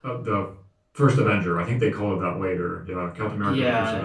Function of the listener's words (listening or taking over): taking over